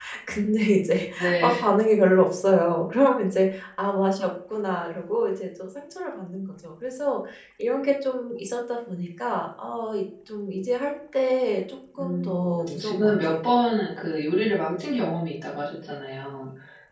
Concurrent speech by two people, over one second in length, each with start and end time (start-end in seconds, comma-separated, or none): 12.0-13.3